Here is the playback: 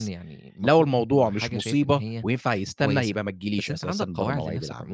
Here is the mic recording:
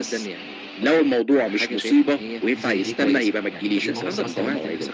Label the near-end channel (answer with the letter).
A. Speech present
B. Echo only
A